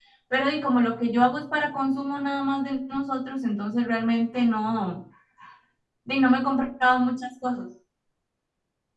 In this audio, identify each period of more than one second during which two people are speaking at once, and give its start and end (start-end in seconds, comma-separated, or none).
none